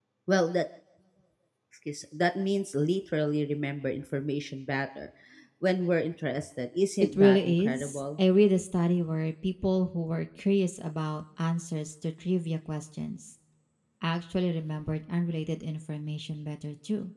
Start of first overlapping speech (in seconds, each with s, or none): 7.0 s